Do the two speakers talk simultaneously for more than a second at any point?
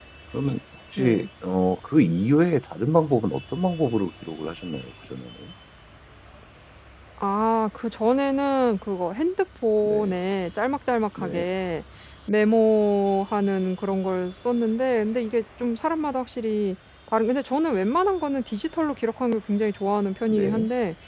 No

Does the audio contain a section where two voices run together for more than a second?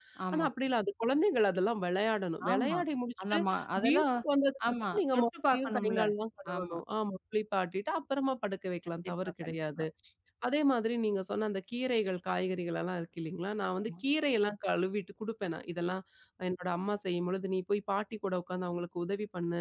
Yes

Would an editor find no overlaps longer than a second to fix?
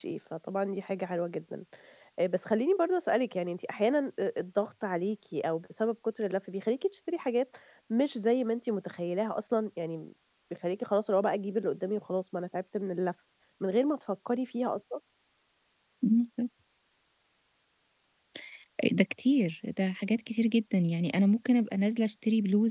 Yes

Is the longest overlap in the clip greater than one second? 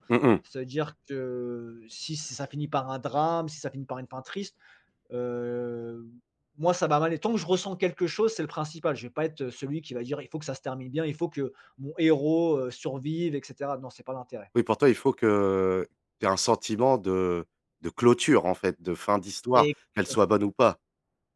No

